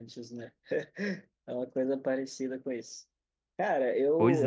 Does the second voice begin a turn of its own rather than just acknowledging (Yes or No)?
No